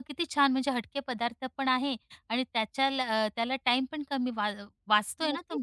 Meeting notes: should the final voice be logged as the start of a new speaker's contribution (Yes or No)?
Yes